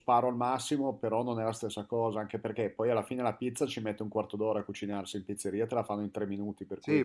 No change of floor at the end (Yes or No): No